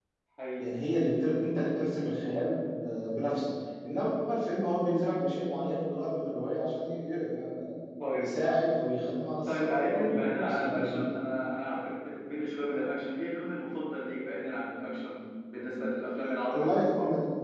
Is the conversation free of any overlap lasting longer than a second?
No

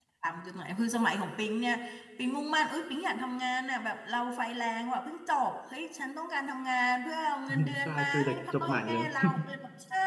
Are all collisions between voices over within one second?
No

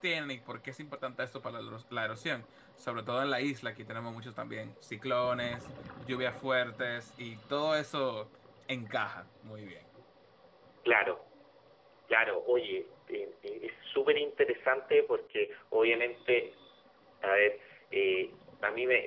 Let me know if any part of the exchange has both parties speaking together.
No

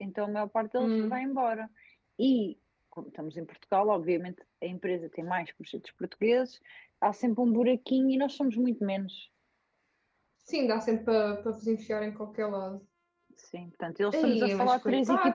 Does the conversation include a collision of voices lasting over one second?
Yes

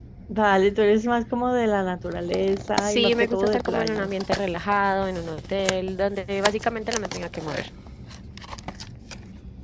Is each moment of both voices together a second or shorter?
No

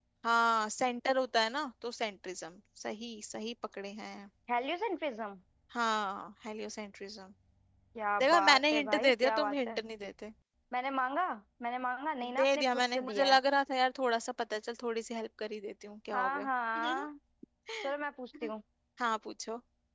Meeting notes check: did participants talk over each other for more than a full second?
Yes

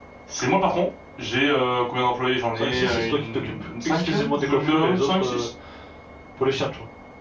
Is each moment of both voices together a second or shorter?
No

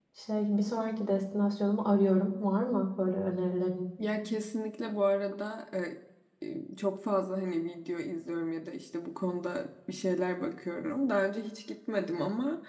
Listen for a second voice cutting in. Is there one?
No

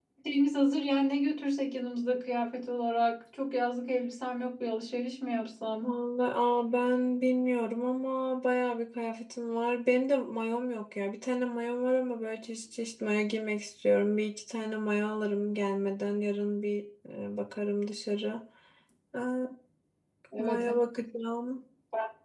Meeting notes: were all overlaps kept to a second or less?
Yes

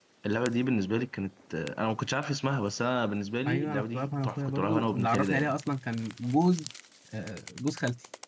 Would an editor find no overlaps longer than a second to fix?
No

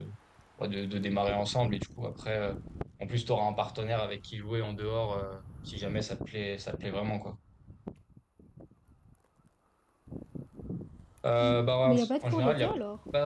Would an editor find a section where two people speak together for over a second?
Yes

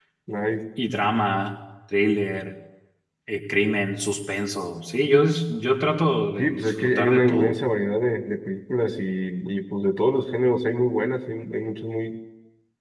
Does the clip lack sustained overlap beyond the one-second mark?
No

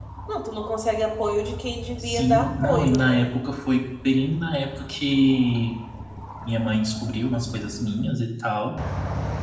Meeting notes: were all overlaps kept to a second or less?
No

